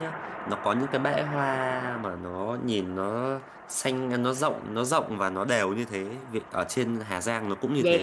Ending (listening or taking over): taking over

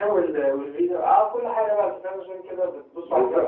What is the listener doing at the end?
taking over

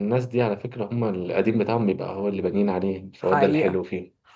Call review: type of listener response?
taking over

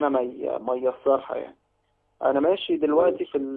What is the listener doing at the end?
listening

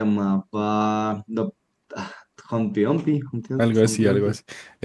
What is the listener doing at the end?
taking over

